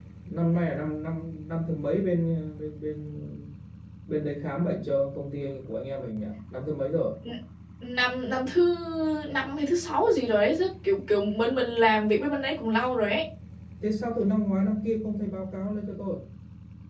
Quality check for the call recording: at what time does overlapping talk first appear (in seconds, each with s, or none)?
none